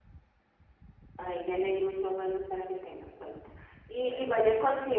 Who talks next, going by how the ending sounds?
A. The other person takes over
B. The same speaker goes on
B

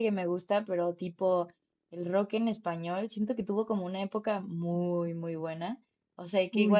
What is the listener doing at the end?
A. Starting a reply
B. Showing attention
B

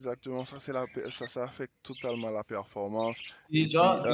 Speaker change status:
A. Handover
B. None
A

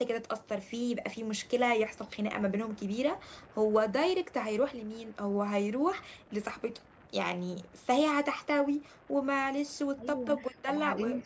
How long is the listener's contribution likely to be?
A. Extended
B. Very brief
A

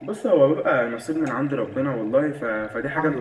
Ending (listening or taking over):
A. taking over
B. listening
B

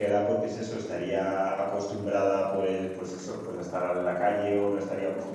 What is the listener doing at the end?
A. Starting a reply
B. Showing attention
B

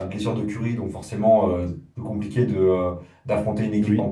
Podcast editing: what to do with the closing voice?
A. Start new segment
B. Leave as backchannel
B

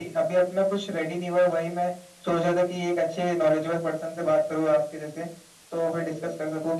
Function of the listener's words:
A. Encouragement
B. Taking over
A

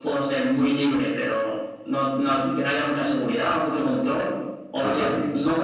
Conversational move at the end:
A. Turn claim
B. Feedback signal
B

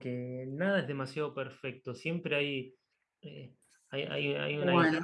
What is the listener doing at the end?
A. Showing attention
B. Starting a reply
A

